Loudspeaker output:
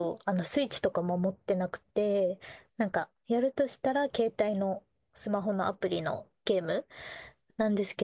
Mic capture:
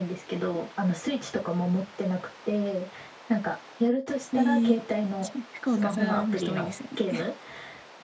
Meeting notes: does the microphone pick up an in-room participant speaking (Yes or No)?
Yes